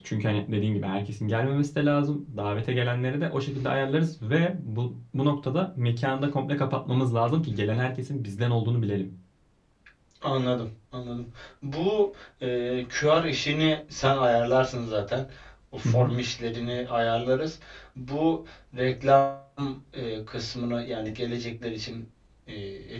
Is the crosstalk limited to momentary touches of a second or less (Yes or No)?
Yes